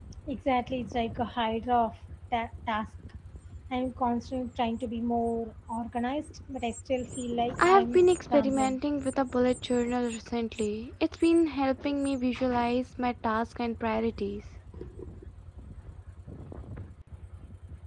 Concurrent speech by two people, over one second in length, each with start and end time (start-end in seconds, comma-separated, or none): 7.6-8.8